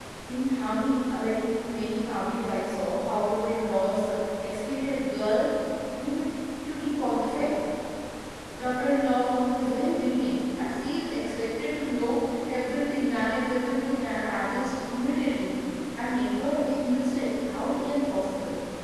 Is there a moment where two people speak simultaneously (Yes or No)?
No